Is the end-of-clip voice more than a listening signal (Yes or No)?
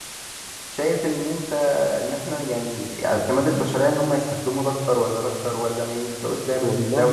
Yes